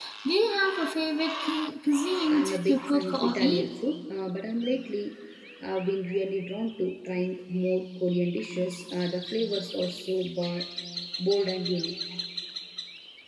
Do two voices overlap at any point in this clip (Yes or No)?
Yes